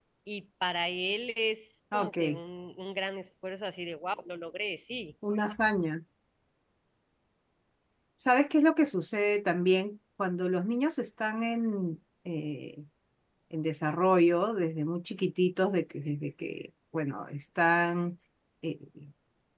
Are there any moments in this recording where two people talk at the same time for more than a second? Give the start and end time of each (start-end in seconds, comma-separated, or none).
none